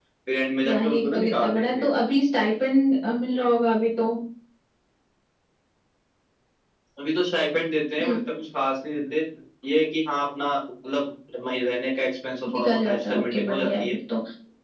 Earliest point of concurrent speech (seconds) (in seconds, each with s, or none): 0.7 s